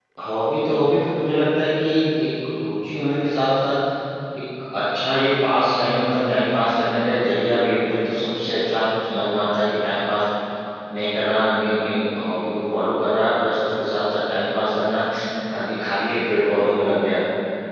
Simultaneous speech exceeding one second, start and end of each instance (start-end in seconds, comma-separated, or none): none